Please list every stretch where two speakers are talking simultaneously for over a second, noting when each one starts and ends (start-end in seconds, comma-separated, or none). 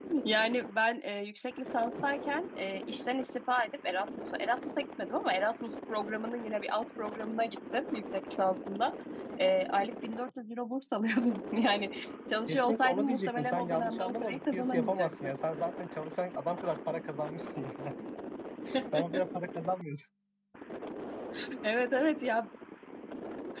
12.5-15.3